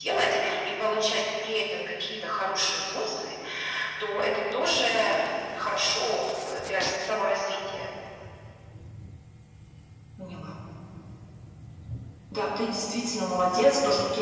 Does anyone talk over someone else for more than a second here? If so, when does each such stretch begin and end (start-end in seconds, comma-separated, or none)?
none